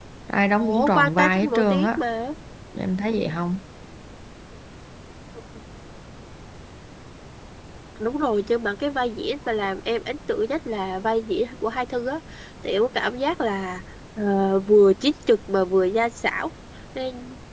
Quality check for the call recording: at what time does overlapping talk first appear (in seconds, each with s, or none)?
0.5 s